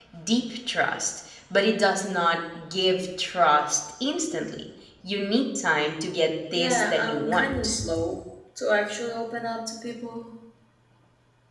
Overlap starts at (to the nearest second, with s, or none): 7 s